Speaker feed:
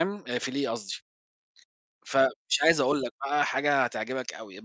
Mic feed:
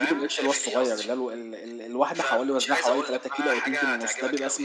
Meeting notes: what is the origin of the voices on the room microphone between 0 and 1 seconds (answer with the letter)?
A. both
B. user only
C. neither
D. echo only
A